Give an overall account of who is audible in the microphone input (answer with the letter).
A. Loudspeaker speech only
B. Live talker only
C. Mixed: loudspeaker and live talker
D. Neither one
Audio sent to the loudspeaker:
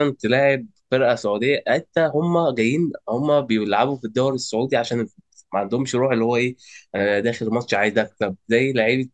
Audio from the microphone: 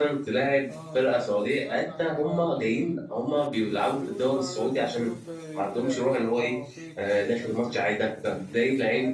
C